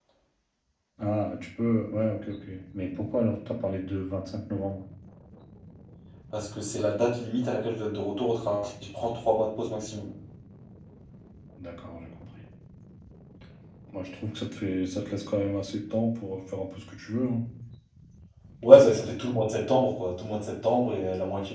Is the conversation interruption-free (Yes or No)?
Yes